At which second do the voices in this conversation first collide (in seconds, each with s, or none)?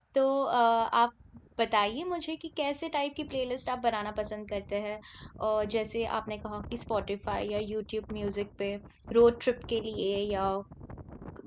none